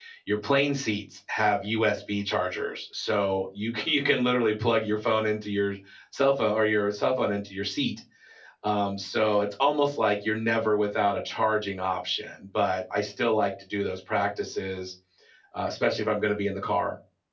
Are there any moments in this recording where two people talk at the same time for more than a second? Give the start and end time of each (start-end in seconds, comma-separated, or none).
none